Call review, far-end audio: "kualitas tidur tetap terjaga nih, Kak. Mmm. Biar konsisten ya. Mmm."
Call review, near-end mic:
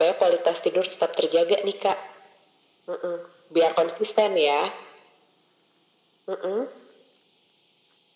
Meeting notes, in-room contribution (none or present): none